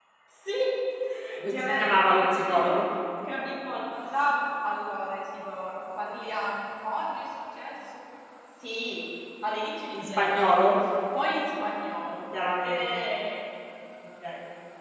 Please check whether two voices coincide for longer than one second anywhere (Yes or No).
Yes